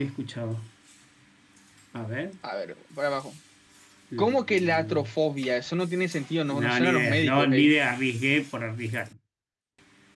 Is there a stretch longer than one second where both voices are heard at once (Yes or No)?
Yes